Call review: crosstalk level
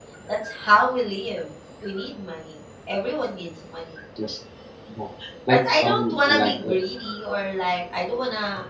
present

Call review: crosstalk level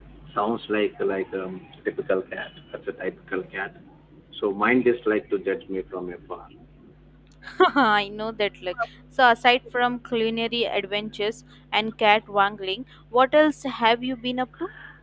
none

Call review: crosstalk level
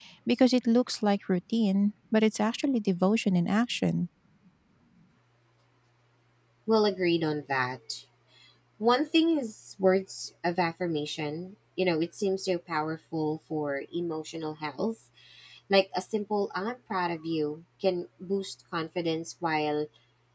none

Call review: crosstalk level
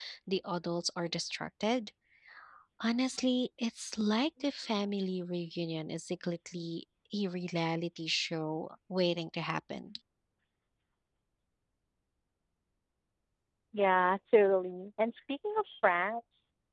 none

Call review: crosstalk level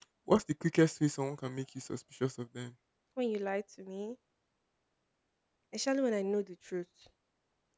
none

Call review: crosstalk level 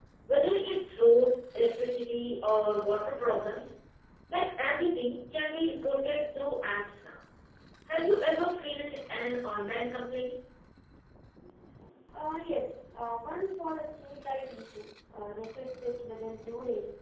none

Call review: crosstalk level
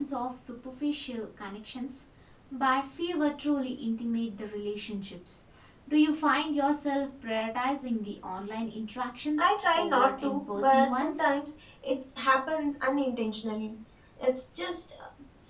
present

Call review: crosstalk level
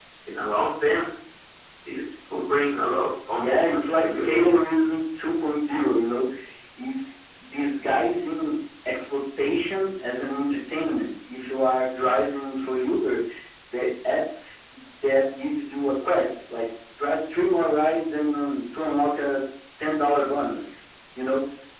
present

